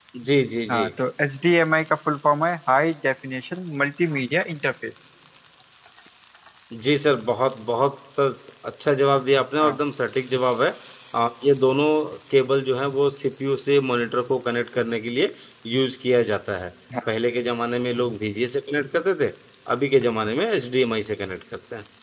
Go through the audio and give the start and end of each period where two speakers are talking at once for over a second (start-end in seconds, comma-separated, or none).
none